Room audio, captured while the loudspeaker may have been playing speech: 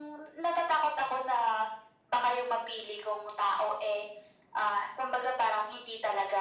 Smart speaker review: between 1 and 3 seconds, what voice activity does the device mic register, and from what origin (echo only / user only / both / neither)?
echo only